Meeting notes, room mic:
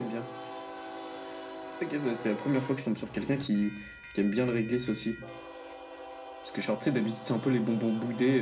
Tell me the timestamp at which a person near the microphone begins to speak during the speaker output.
none

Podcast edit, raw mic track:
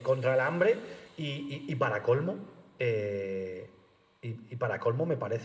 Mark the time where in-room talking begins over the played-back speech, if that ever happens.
none

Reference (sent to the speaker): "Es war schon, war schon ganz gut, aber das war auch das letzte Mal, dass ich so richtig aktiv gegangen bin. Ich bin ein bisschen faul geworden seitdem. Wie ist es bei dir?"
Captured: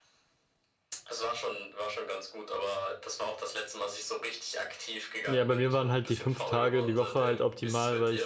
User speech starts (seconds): 5.2 s

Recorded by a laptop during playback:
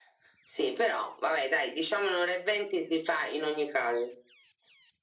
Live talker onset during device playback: none

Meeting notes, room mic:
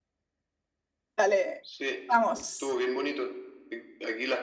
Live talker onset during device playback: 1.2 s

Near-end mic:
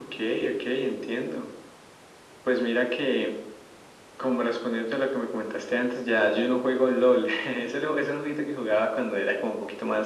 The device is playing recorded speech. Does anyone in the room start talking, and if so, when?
none

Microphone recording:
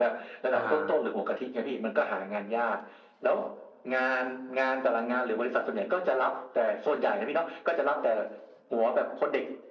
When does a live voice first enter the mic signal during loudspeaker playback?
0.5 s

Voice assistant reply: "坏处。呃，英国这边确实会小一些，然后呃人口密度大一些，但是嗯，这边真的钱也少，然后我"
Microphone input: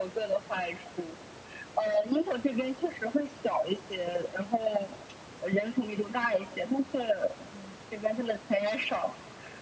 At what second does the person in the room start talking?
none

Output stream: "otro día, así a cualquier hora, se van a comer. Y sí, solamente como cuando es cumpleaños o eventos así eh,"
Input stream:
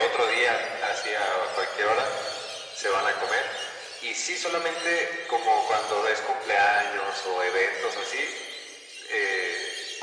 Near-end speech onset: none

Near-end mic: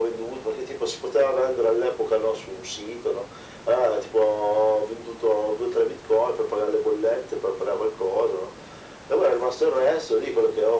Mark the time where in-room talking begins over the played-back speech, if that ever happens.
none

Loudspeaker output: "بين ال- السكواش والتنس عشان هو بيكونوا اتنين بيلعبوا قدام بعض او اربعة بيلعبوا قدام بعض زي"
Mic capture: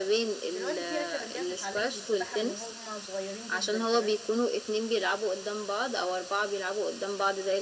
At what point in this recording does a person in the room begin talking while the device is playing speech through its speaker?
0.5 s

